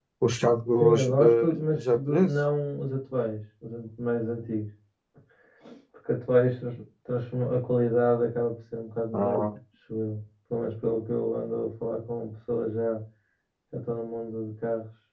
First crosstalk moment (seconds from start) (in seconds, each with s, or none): 0.8 s